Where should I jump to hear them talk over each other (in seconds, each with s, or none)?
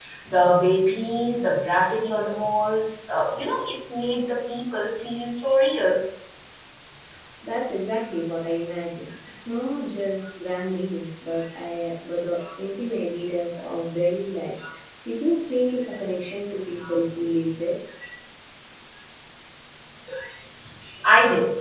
none